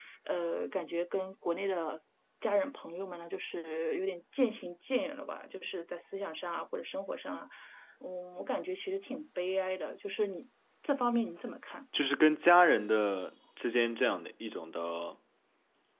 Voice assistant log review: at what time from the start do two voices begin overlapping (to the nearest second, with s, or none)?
none